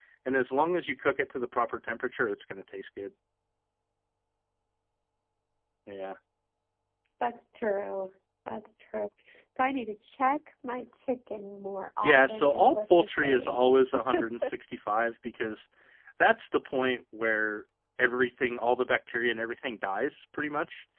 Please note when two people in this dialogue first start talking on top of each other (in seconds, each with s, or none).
12.0 s